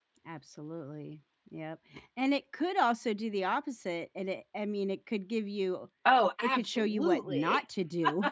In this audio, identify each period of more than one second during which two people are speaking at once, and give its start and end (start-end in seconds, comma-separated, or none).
6.4-7.6